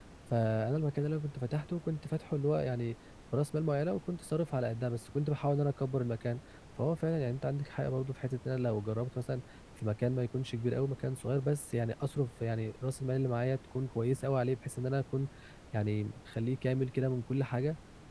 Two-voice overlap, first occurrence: none

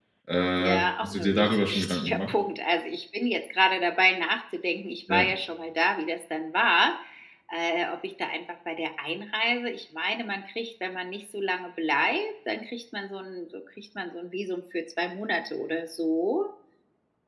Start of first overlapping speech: 0.6 s

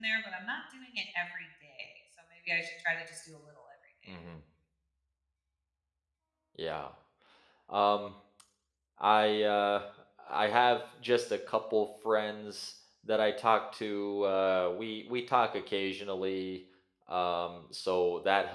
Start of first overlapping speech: none

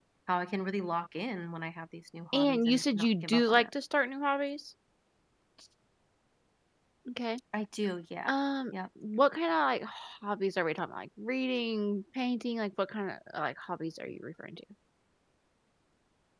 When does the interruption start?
2.3 s

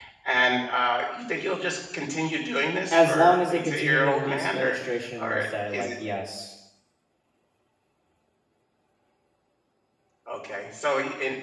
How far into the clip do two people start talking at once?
2.9 s

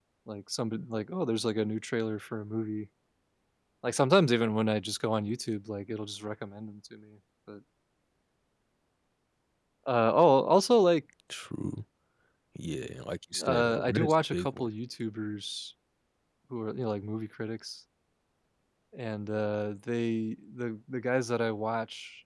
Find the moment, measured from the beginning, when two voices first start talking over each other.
13.4 s

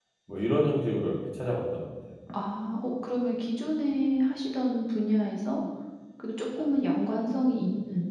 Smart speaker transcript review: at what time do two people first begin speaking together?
none

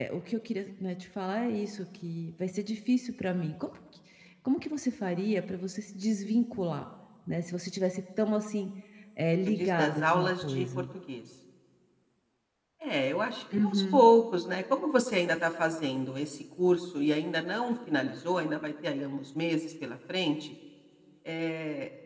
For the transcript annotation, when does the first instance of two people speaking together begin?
9.5 s

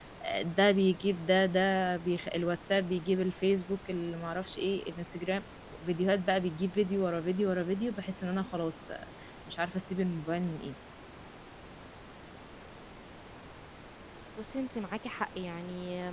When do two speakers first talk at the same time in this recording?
none

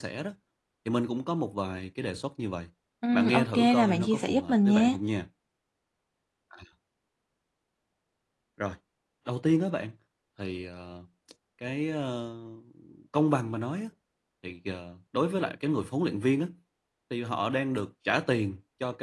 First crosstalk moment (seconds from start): 3.1 s

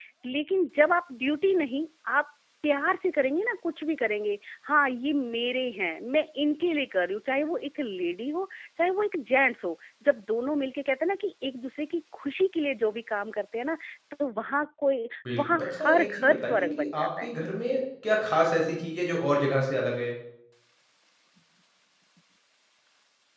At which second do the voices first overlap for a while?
15.2 s

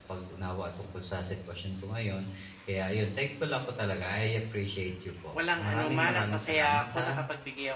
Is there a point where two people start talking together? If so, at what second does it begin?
5.3 s

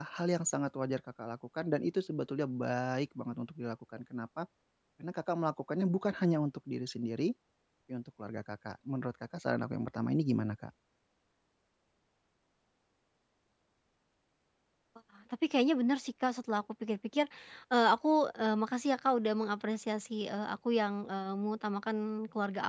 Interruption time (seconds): none

